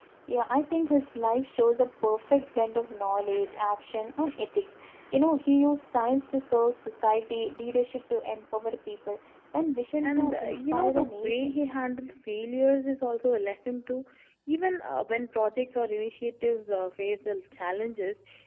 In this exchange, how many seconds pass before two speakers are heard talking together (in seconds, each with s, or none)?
10.0 s